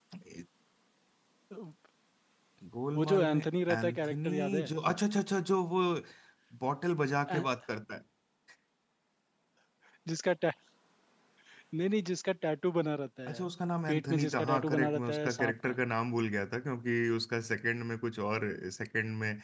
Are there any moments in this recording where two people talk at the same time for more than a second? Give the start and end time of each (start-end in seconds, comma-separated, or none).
3.0-4.7, 13.9-15.8